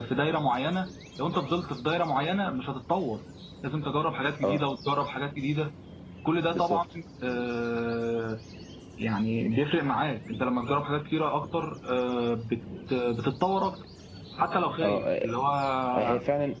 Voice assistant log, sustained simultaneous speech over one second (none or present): none